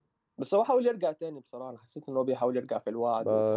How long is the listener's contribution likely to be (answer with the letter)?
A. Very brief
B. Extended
B